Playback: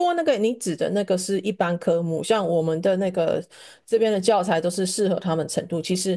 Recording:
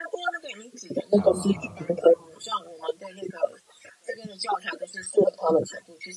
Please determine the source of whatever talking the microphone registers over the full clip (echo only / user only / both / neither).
both